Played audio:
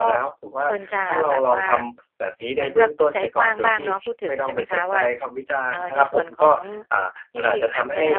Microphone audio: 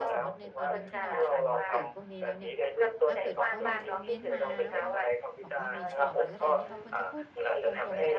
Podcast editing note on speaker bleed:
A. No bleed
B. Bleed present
B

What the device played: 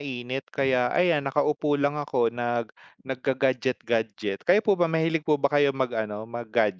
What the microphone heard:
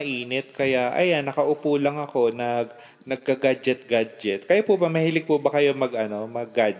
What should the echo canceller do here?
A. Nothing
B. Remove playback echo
B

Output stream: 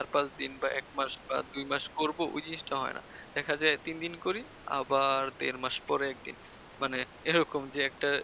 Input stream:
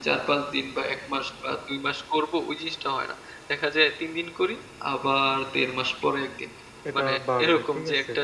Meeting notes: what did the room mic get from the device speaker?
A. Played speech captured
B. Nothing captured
A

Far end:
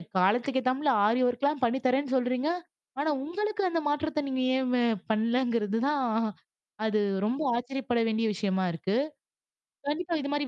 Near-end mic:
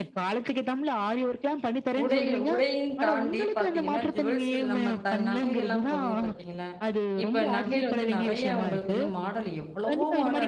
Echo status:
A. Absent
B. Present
B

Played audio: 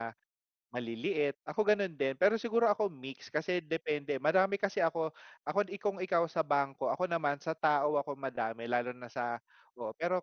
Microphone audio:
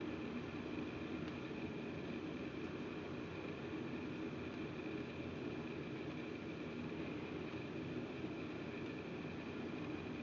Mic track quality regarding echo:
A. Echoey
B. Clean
B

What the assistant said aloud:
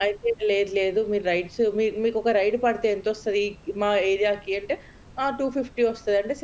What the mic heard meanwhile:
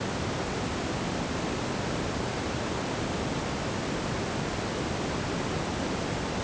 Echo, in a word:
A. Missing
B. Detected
A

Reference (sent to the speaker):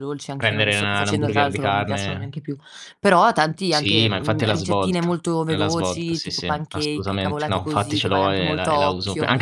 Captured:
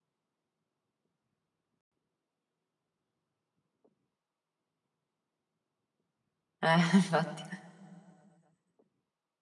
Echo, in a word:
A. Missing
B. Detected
A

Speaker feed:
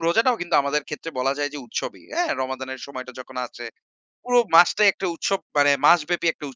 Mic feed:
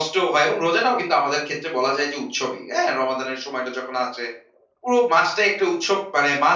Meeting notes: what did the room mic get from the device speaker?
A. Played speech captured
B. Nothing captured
A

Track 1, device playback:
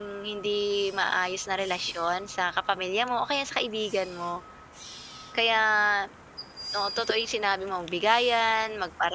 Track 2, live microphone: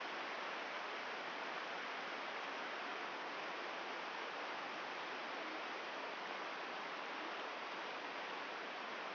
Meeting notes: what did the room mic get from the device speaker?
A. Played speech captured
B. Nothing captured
B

